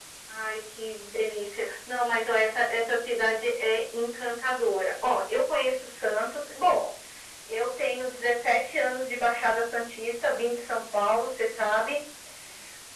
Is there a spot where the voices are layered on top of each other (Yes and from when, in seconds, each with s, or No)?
No